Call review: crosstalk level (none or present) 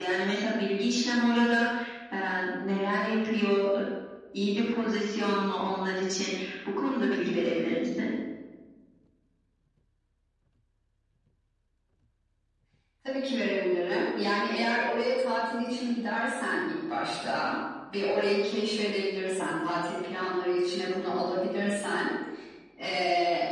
none